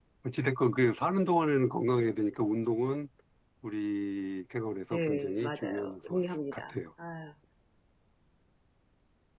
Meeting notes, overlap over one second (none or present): present